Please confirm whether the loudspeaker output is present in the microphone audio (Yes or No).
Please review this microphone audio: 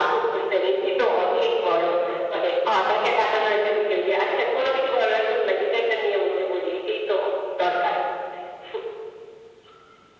Yes